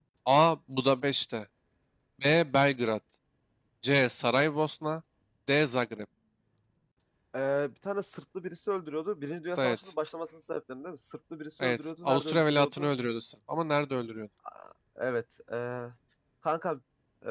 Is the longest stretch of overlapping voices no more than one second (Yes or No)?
No